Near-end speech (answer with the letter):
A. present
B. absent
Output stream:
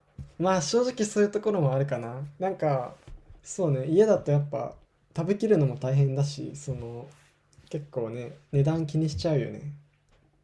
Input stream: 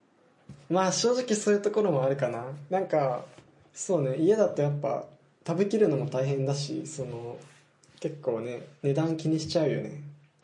B